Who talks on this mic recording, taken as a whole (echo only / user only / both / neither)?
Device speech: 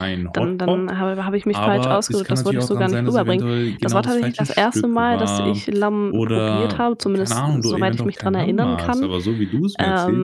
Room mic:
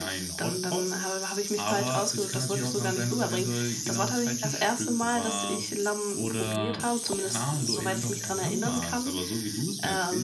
echo only